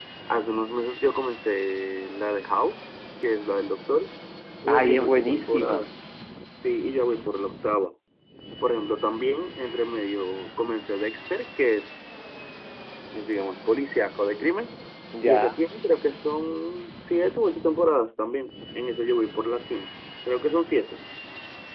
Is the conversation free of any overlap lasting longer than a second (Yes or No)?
No